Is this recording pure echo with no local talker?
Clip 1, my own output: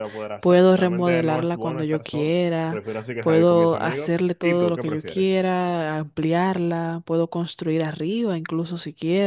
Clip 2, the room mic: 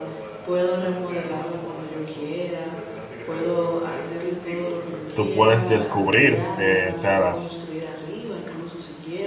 No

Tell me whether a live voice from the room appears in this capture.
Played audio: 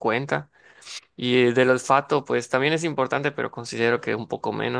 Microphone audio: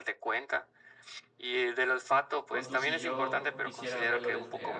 Yes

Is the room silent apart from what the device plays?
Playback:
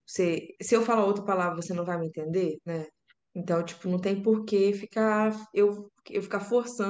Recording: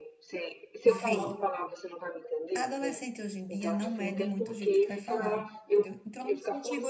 No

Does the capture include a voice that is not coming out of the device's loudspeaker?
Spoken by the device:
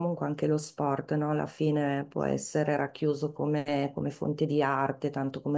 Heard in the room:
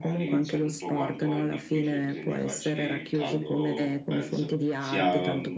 Yes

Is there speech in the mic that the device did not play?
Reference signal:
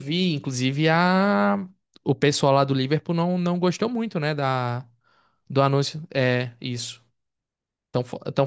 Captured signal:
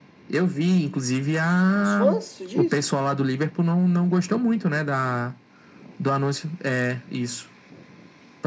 Yes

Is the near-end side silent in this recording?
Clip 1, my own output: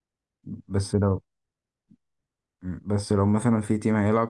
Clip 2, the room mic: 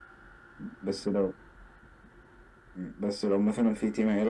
Yes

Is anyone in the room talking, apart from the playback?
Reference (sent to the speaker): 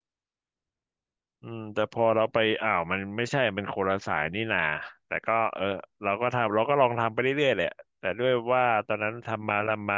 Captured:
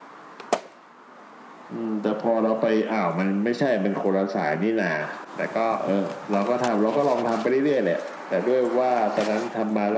No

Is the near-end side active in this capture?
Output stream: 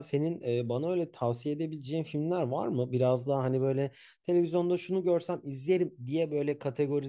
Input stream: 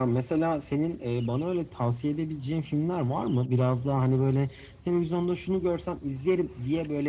No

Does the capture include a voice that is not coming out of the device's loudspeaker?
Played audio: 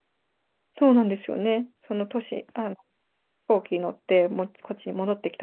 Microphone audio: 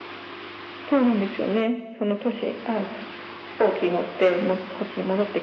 No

